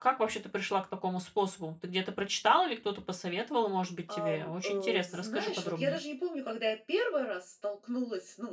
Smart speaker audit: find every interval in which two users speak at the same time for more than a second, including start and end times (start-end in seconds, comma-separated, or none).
4.1-6.0